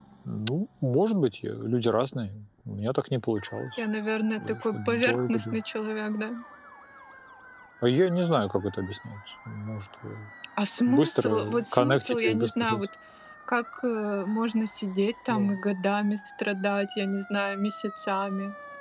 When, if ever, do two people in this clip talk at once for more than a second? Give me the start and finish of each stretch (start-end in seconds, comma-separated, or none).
4.4-5.6, 10.9-12.8